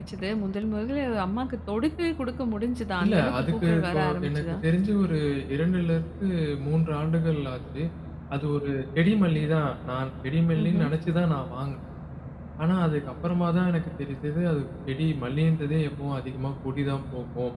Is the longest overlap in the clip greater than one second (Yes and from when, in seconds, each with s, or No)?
Yes, from 3.0 s